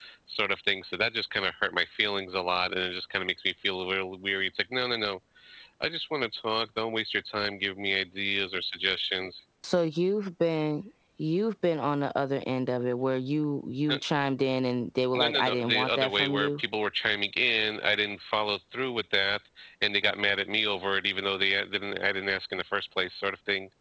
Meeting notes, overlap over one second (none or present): present